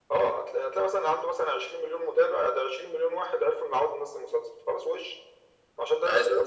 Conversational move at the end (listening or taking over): listening